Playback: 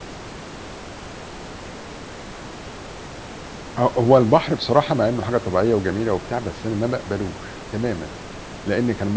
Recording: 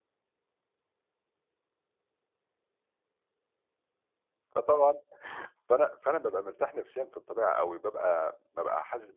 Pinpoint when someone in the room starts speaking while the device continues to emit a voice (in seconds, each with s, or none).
4.5 s